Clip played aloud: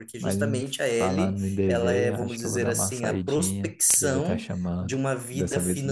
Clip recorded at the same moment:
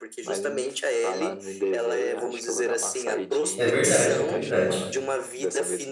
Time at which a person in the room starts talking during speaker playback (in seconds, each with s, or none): 3.6 s